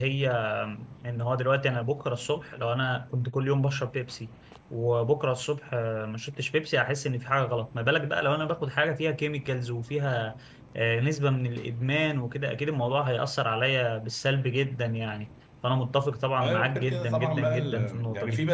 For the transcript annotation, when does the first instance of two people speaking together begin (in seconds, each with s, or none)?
16.4 s